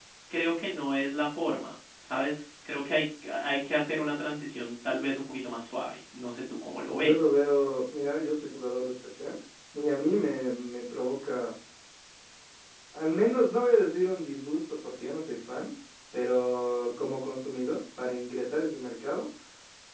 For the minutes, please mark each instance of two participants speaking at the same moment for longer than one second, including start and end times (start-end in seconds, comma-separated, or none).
none